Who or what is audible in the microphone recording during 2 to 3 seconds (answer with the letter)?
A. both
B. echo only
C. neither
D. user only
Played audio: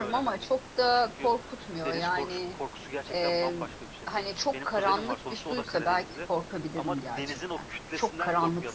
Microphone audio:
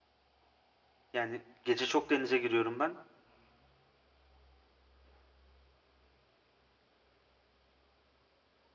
D